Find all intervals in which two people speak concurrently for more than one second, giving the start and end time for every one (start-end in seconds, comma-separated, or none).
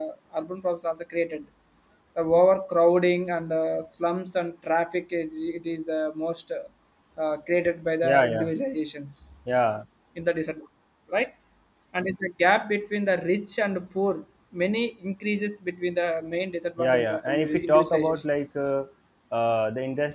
16.8-18.5